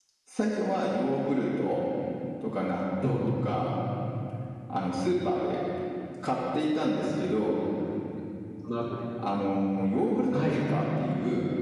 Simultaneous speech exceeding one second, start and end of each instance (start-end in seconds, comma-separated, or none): none